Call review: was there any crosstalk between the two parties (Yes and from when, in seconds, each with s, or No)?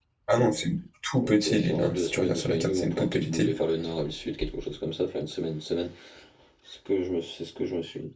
Yes, from 1.2 s